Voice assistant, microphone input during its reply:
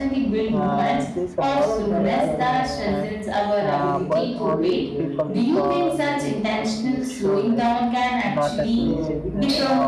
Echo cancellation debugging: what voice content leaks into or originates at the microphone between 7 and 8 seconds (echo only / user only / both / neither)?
both